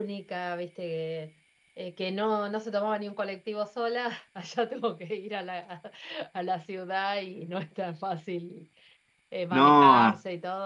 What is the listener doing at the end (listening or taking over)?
listening